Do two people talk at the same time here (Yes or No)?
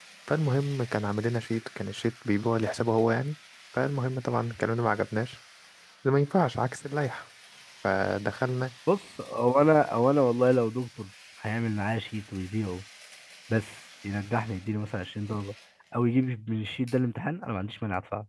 No